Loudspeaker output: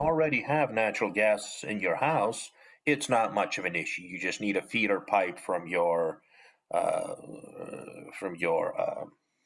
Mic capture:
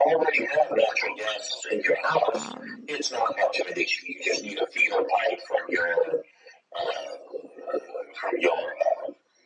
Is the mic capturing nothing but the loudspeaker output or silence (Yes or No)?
No